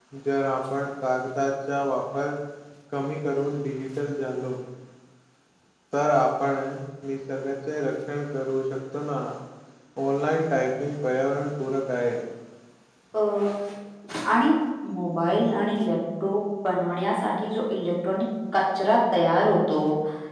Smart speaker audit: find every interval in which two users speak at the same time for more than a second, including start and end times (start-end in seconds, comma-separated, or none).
none